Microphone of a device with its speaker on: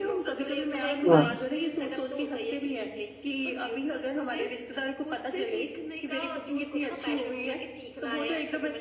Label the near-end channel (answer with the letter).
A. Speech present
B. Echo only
A